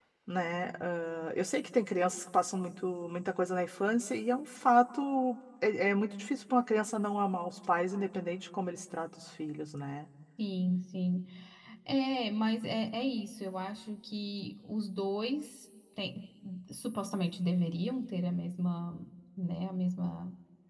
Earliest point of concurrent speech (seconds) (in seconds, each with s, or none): none